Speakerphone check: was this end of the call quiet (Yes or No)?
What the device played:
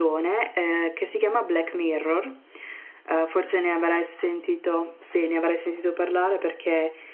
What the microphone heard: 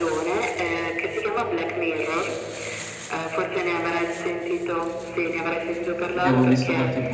No